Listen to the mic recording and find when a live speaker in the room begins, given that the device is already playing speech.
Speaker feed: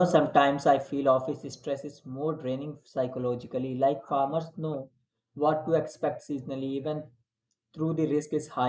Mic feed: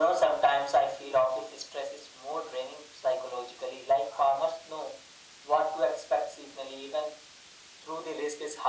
none

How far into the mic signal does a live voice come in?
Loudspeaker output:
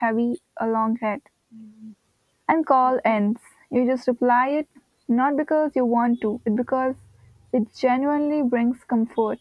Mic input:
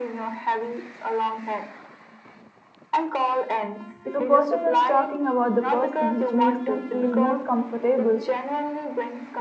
4 s

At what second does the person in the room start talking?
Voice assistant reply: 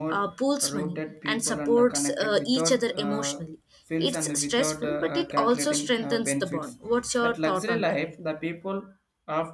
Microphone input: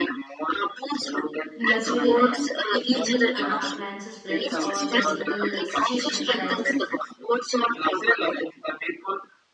2 s

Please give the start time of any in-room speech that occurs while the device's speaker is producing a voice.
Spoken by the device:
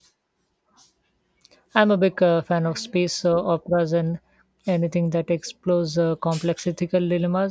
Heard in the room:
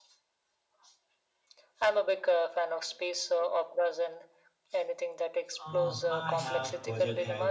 6 s

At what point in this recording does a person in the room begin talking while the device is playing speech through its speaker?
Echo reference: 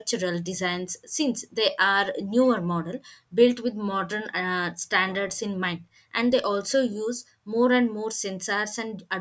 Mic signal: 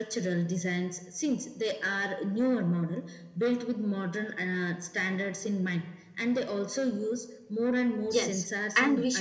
8 s

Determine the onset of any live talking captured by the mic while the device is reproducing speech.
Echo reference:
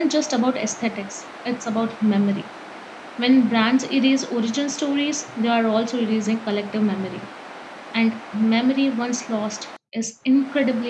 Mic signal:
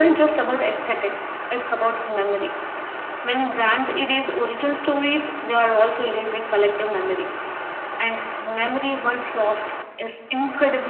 none

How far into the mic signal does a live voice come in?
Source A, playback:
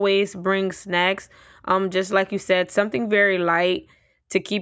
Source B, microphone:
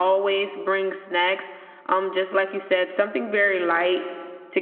none

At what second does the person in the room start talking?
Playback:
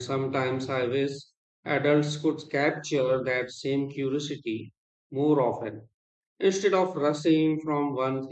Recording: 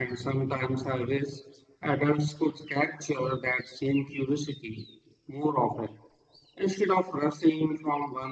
none

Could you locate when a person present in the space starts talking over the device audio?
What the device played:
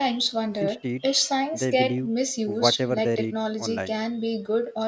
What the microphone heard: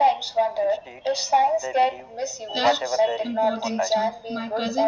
3 s

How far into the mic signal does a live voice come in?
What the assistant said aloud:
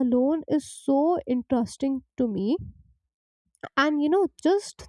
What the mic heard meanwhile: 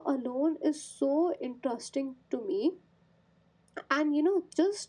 none

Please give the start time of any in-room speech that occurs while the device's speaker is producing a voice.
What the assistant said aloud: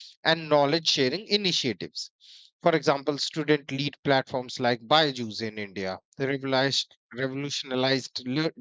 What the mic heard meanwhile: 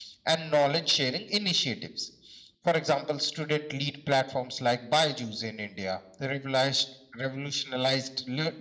none

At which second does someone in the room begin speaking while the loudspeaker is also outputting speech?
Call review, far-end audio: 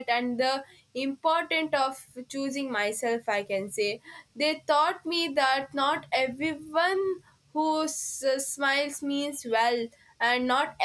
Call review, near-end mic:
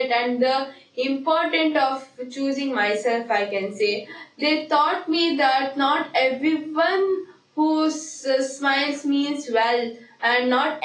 none

